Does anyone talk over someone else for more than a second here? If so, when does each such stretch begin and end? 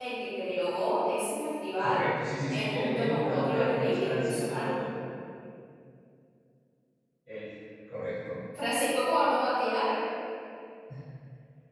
2.5-4.7

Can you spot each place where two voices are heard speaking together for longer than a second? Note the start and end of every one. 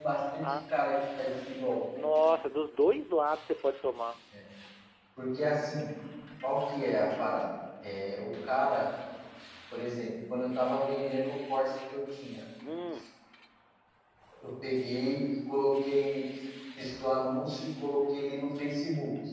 none

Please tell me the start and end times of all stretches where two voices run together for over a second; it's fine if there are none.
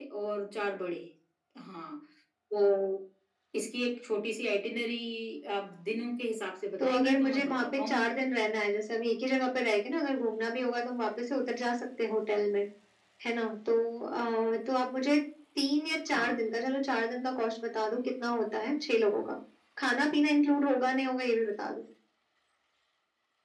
6.8-8.0

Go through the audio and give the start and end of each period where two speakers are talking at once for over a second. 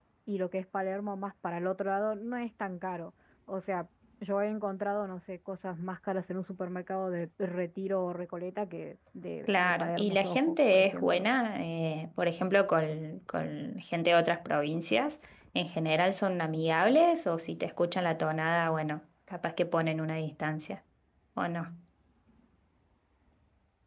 9.5-11.2

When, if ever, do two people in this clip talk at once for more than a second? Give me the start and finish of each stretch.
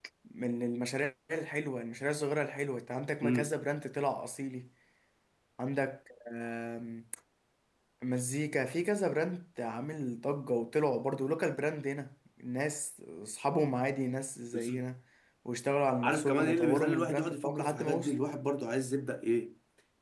16.0-18.1

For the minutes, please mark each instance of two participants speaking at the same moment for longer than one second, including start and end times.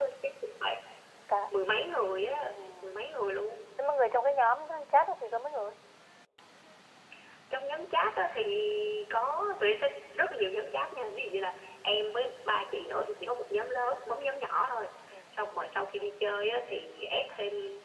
none

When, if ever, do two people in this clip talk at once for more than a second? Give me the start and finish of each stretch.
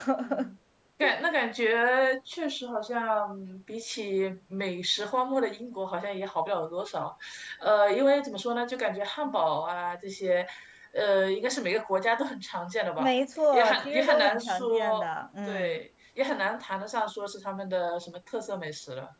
13.5-15.0

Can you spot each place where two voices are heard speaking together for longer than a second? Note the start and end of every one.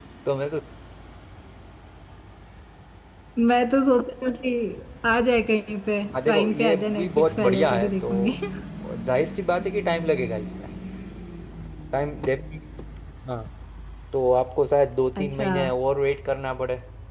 6.3-8.3

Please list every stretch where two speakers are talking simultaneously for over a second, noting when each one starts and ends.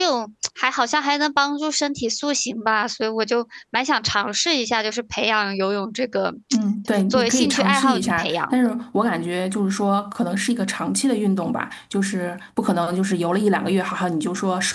6.9-8.5

